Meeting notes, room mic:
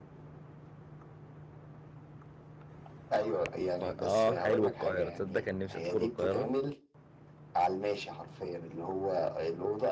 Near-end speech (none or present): present